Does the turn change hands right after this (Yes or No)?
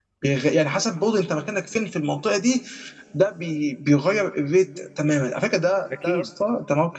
No